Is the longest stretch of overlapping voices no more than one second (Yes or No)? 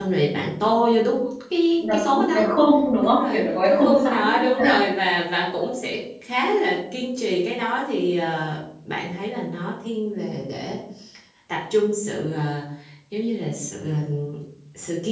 No